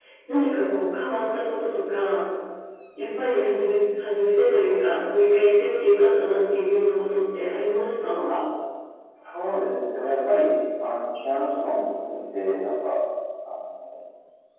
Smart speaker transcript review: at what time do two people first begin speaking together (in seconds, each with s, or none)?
none